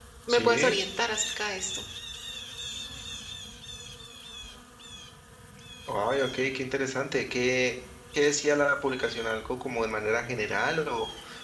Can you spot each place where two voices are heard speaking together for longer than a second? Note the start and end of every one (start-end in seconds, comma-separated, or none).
none